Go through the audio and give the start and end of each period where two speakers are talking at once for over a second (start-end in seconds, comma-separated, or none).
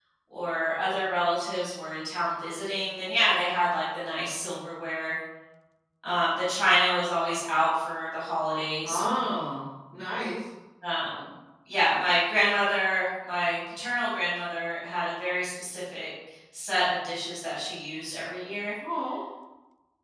none